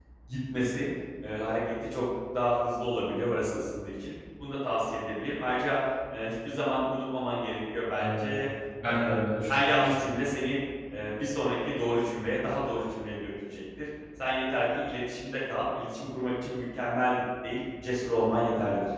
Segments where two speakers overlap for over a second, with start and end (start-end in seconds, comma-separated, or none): 8.8-10.2